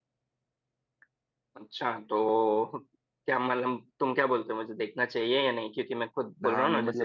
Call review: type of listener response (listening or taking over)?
taking over